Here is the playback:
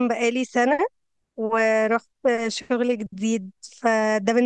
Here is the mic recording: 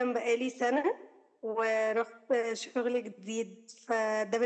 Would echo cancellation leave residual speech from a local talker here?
No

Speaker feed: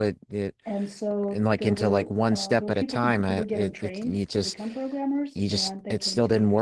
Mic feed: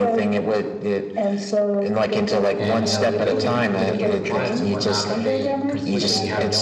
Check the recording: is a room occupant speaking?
Yes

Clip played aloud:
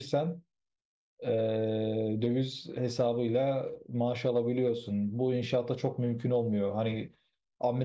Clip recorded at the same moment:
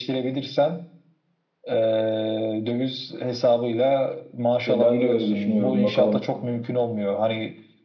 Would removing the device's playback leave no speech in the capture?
No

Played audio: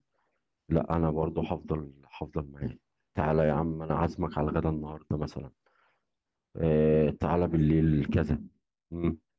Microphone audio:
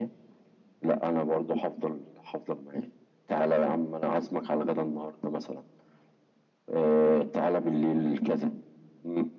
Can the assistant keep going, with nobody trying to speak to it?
Yes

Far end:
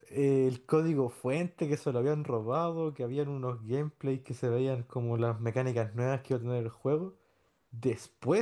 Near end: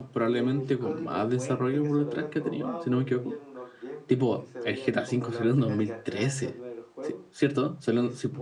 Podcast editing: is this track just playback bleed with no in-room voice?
No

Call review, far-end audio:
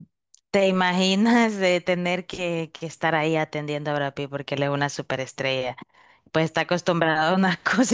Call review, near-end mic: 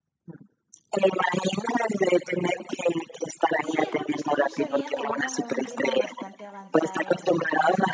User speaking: Yes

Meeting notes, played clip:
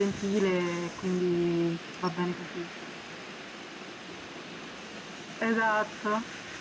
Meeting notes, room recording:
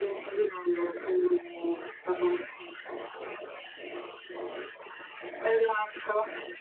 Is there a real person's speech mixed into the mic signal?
No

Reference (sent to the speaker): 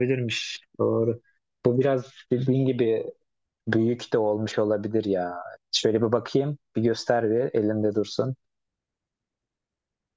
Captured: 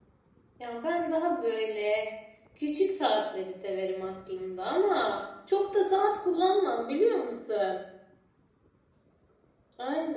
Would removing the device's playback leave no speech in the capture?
No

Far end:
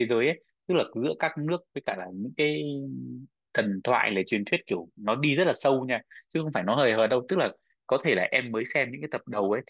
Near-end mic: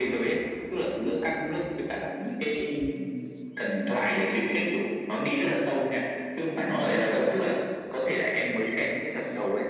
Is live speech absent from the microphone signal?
Yes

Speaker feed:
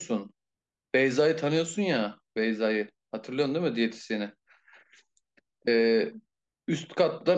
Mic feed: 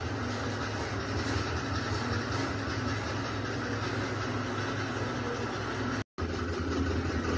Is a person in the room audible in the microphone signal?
No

